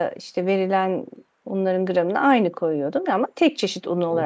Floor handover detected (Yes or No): Yes